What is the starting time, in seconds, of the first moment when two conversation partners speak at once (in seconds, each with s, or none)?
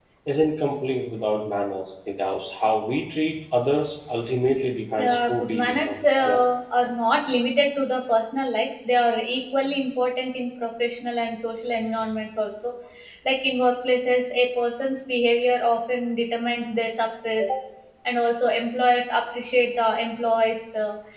5.0 s